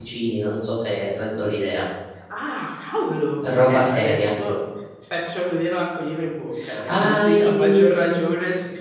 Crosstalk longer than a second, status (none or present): present